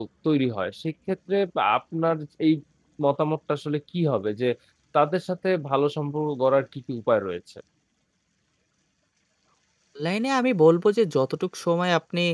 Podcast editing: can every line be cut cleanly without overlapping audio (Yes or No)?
Yes